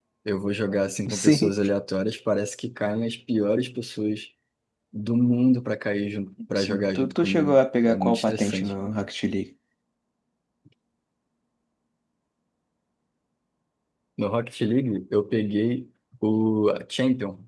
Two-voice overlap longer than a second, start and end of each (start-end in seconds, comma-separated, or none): 6.5-8.7